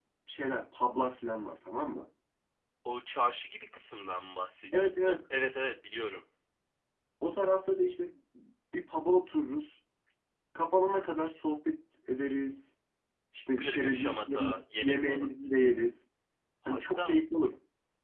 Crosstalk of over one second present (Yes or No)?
Yes